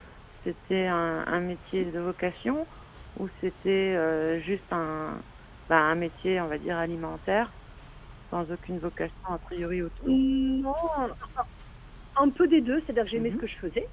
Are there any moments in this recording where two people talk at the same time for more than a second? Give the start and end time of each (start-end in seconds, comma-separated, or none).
none